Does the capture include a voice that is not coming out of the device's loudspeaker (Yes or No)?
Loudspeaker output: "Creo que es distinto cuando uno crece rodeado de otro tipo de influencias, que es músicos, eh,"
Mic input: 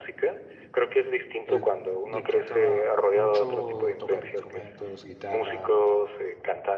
Yes